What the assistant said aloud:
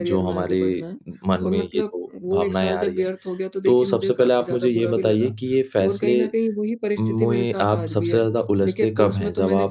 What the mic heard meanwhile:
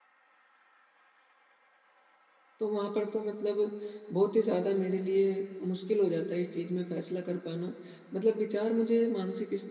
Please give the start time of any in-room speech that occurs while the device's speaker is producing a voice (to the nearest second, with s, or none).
3 s